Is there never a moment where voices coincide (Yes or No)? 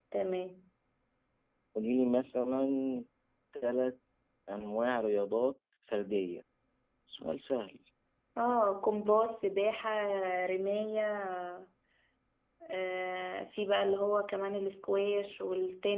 Yes